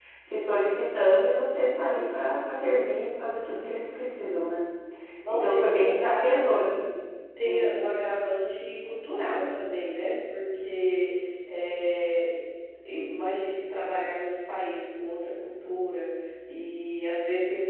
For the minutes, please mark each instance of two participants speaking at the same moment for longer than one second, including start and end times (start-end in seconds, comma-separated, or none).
5.3-6.6